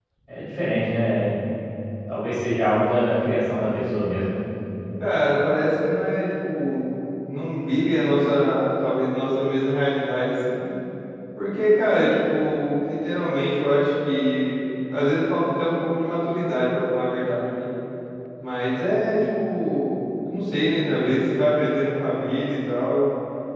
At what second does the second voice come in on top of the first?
none

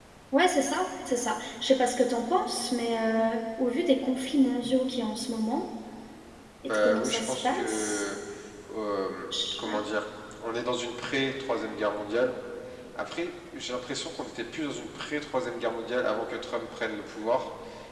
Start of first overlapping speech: 7 s

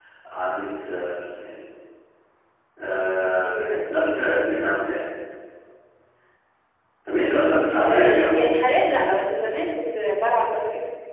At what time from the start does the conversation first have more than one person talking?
3 s

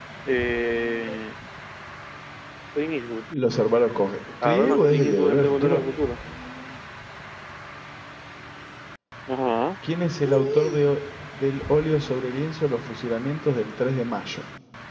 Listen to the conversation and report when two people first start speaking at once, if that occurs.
4 s

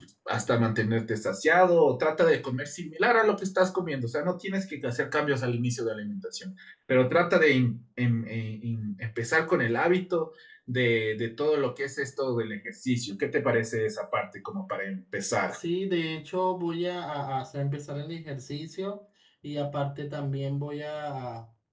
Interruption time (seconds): none

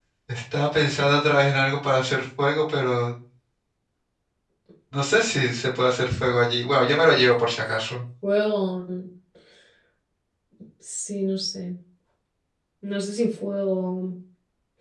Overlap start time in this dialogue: none

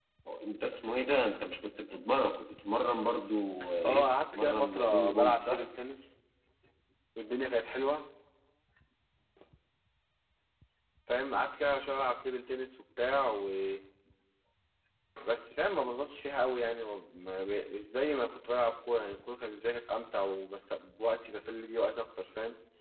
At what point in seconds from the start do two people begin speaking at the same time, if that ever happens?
4 s

